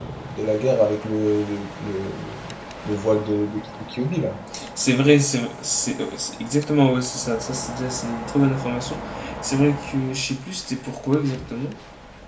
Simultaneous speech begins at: none

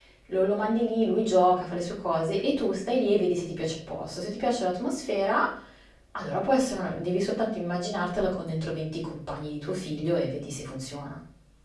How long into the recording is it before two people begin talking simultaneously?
none

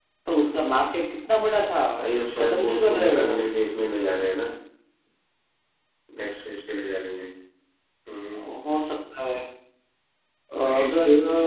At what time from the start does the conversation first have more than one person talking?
2.0 s

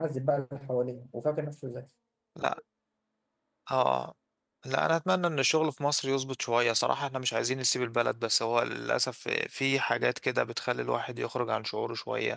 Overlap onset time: none

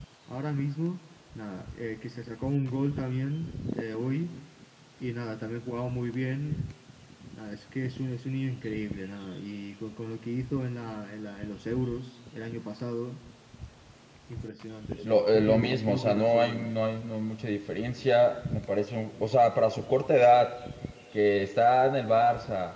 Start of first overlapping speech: 14.9 s

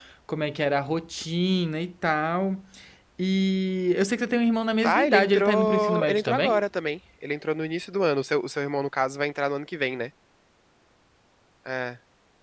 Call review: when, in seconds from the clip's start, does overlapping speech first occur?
4.8 s

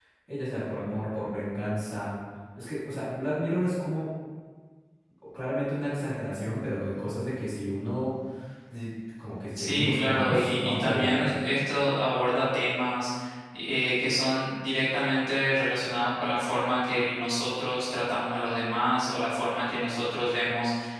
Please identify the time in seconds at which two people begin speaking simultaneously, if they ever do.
9.6 s

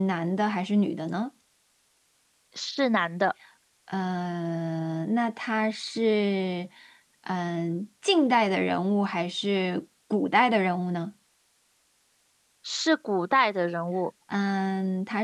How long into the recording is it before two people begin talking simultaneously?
none

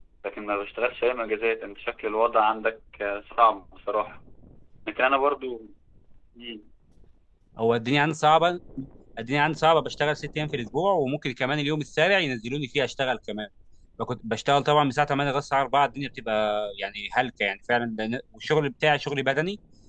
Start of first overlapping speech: none

